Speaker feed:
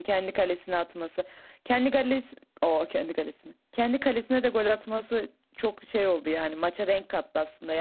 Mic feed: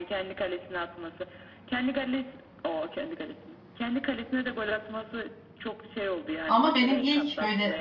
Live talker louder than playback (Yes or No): Yes